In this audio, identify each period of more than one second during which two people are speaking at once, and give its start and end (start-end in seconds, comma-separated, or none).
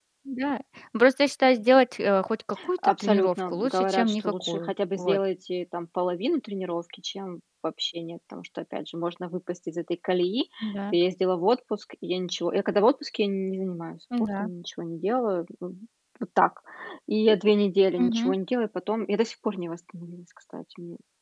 2.8-5.2